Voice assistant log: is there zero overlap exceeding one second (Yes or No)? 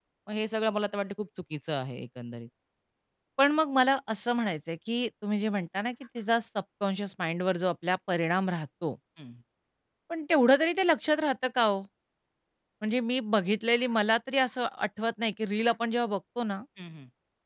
Yes